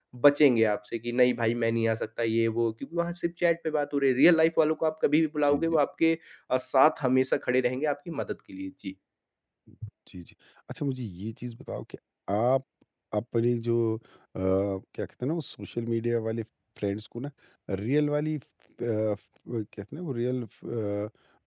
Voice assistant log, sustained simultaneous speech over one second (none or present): none